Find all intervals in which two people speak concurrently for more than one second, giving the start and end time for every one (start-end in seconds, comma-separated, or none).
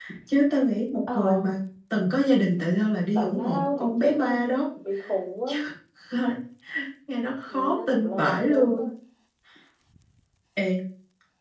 3.1-4.4, 7.5-8.8